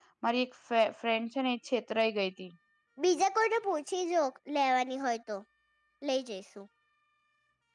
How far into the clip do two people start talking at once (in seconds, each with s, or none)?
none